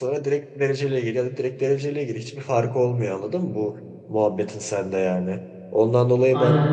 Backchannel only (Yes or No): Yes